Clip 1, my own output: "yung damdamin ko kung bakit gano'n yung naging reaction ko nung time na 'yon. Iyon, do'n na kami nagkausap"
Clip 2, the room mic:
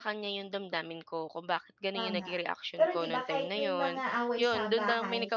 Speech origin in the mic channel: both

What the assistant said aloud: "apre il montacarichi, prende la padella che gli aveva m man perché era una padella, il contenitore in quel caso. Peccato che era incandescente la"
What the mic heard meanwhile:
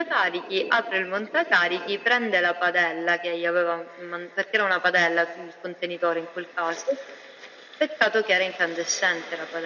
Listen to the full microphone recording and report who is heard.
echo only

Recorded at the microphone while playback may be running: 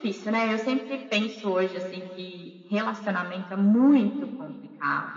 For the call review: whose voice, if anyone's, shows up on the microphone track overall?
echo only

